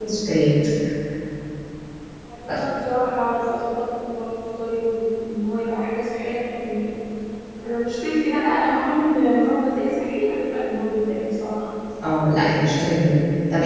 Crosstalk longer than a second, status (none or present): none